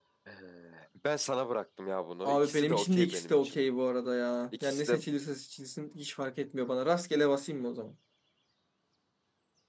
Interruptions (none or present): present